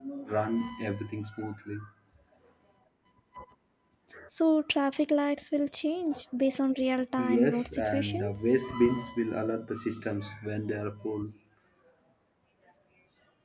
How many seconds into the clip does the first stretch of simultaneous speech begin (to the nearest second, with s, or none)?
7 s